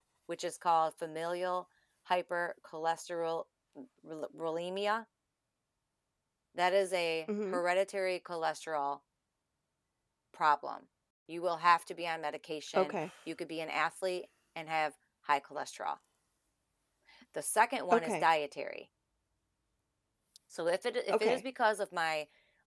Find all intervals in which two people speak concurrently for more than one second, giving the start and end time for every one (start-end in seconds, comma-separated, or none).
none